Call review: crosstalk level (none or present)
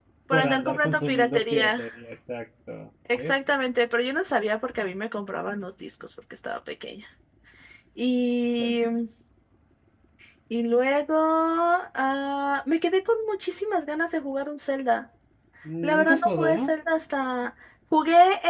present